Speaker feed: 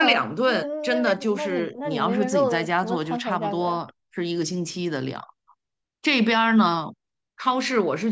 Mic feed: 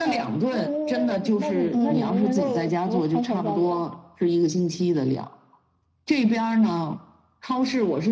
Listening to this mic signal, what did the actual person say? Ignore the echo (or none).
嗯，是，